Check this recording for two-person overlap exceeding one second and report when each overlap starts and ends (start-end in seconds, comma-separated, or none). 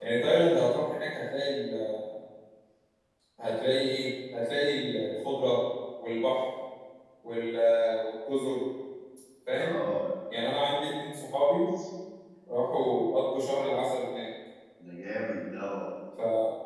none